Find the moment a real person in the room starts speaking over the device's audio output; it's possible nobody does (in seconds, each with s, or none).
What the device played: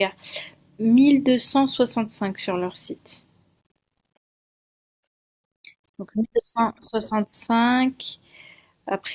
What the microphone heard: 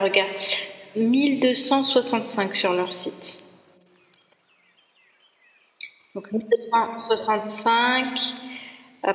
none